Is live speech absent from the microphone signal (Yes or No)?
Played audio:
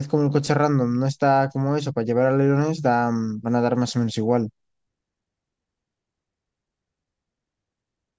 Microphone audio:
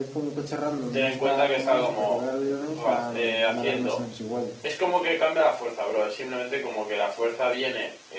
No